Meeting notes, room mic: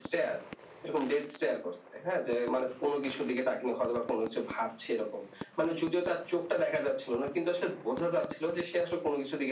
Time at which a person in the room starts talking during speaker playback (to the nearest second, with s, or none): none